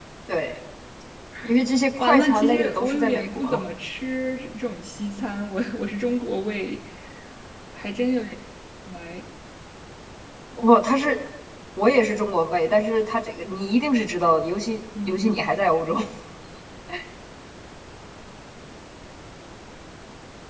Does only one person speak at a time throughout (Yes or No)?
No